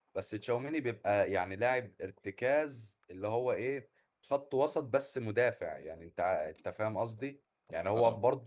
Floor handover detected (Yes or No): No